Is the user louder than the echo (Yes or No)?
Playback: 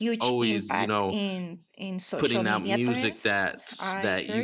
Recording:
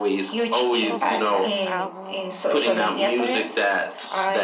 No